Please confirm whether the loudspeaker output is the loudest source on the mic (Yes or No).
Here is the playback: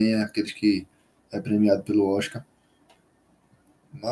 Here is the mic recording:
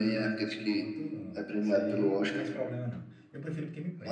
Yes